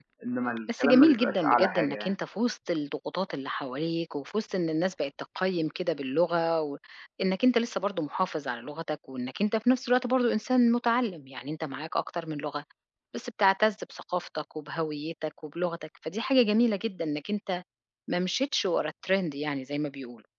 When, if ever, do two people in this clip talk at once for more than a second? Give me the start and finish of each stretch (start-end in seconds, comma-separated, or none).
0.8-2.1